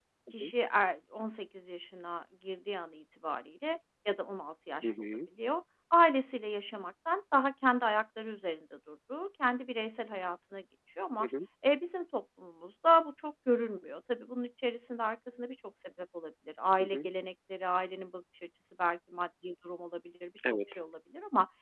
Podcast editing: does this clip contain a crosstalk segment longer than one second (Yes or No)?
No